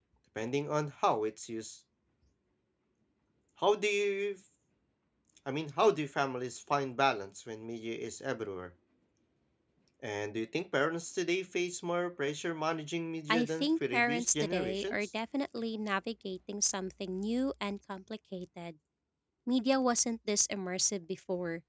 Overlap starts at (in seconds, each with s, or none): 13.3 s